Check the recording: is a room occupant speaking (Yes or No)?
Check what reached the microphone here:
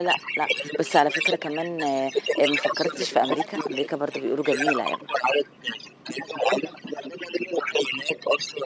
Yes